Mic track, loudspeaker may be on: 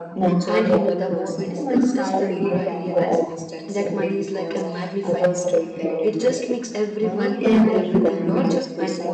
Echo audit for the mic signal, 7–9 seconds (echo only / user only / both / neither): both